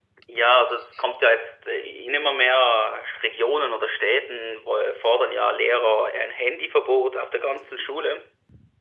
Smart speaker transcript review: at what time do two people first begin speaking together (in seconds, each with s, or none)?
none